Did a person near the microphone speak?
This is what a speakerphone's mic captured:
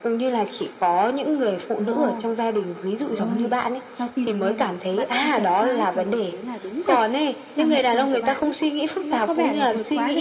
Yes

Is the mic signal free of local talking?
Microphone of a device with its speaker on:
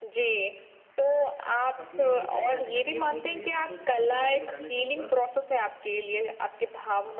No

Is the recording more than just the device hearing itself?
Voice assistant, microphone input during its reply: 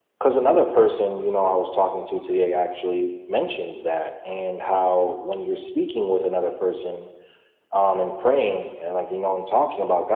No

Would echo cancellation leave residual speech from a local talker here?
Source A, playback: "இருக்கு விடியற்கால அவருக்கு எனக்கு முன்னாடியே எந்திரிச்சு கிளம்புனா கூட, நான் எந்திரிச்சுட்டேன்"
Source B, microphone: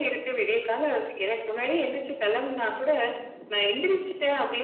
No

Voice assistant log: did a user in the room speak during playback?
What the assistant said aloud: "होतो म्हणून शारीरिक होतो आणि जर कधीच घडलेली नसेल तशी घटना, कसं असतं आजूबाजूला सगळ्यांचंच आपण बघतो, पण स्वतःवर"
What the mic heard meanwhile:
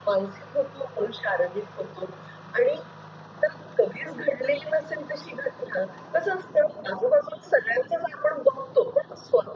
No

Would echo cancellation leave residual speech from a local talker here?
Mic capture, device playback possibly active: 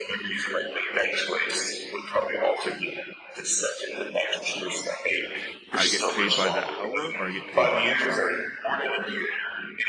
Yes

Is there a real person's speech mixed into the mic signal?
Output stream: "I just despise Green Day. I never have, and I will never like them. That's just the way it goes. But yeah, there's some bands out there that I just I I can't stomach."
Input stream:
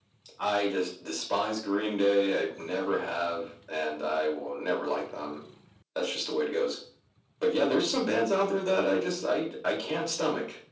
No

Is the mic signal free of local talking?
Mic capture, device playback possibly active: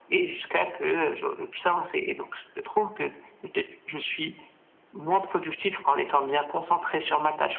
Yes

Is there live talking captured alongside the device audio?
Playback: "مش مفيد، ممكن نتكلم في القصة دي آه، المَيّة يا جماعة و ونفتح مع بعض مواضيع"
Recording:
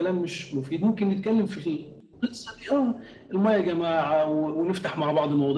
No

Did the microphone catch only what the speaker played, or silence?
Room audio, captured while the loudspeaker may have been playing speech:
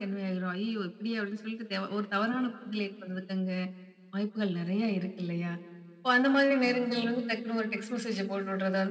Yes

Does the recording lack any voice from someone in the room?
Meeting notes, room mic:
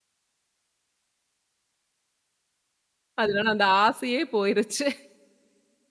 No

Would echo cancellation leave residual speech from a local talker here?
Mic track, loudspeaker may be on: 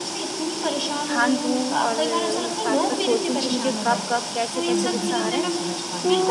Yes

